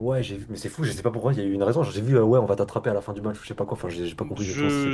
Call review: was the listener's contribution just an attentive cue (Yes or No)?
No